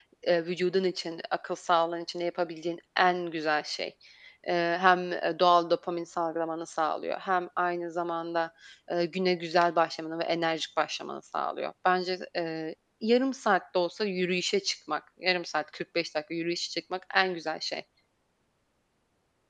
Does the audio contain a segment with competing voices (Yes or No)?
No